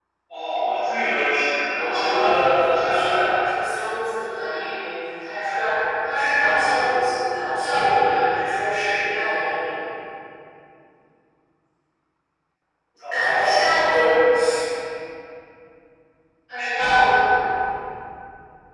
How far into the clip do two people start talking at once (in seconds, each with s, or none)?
1.8 s